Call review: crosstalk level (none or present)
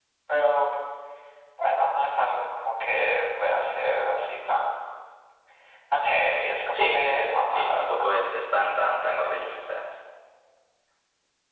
present